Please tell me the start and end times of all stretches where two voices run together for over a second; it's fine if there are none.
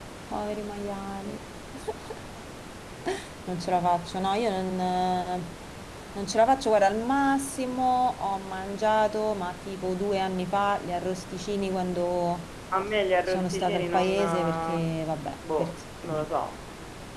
13.3-14.9

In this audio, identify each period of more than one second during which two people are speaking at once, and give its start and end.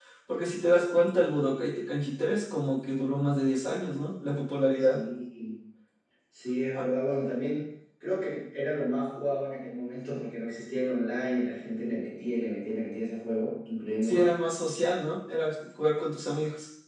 none

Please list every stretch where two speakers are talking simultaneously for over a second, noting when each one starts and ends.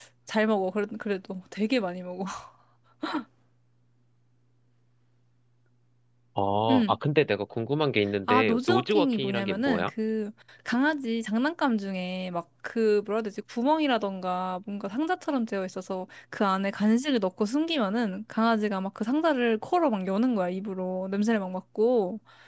8.3-9.9

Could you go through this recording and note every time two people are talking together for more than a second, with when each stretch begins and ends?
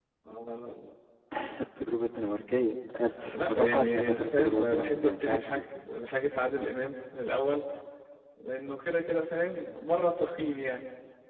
3.2-5.6

